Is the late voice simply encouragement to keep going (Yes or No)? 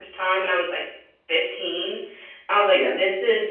Yes